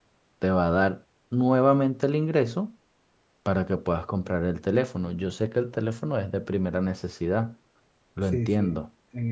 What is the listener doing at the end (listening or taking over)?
taking over